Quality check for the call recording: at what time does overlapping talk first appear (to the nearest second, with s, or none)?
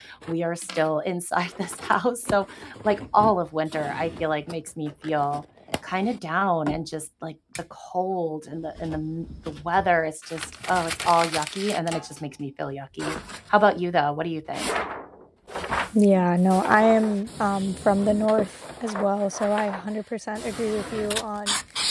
none